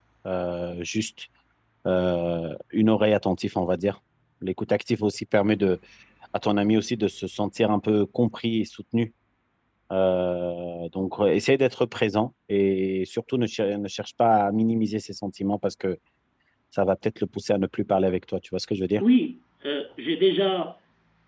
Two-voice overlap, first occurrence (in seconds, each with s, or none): none